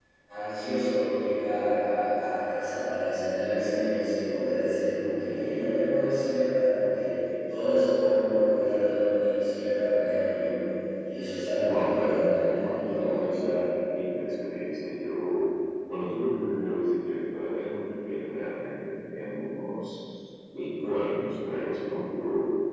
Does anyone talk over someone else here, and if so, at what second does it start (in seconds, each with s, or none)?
11.6 s